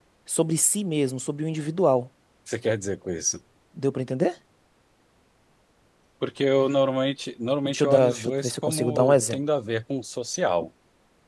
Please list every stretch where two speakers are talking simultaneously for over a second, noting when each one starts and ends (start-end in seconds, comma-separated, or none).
7.6-9.4